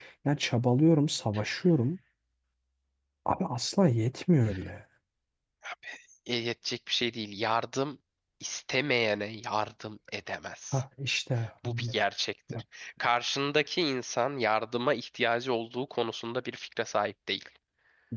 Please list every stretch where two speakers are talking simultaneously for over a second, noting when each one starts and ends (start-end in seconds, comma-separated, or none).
none